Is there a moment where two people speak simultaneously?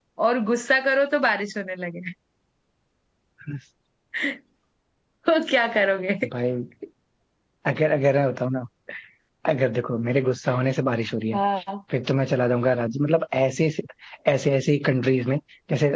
No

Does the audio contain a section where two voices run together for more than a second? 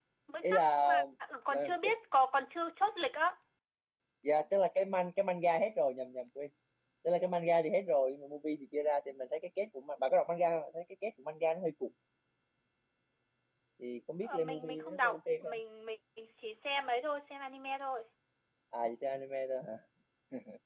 Yes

